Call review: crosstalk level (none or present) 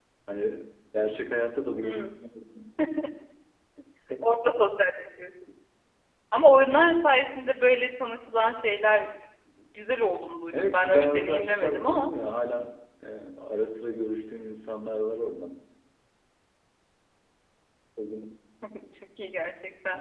present